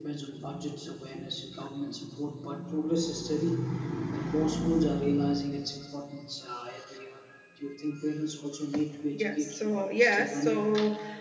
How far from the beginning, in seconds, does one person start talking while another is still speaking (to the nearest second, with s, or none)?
9 s